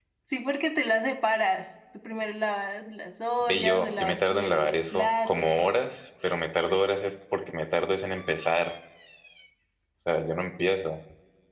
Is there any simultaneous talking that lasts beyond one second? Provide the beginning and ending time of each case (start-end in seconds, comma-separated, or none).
3.5-5.7